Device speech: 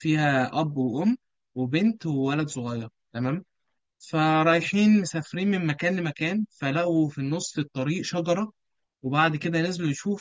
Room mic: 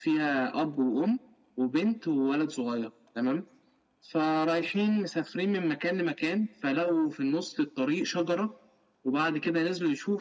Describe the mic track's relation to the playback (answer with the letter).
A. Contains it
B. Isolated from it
A